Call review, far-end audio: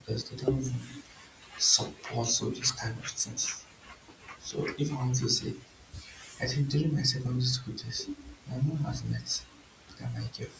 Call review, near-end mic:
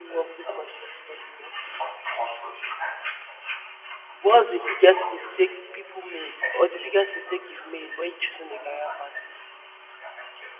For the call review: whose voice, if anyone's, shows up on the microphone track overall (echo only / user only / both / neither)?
both